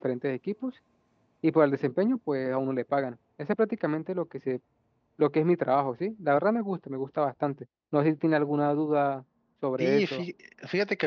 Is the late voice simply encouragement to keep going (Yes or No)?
No